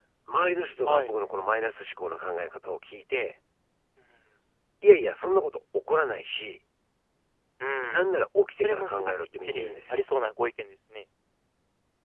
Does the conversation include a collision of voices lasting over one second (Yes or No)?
Yes